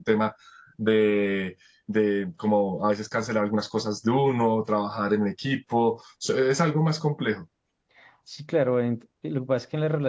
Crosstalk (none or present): none